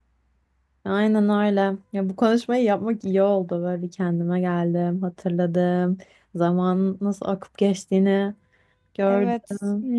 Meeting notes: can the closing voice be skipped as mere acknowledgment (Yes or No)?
No